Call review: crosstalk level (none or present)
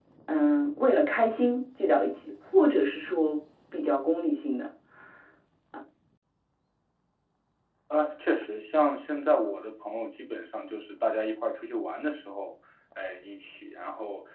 none